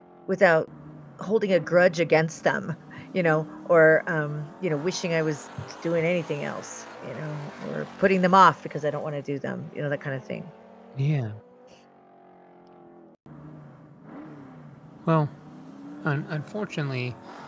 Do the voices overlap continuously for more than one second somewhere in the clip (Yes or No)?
No